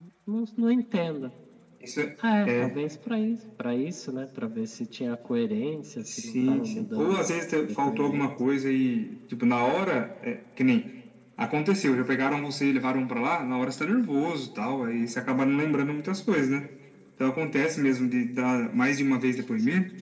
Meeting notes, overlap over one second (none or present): present